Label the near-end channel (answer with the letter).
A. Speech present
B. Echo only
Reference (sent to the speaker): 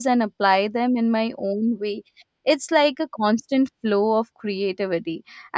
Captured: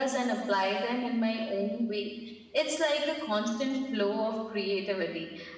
B